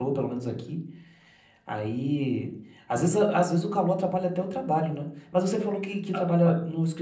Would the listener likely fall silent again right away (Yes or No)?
Yes